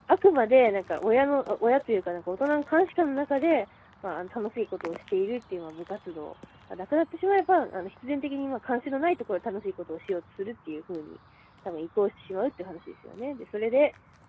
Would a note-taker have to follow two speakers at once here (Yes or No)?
No